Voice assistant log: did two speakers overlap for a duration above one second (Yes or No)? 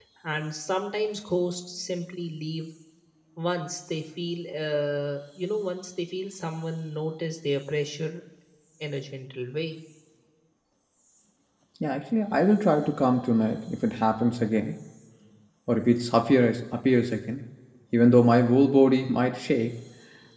No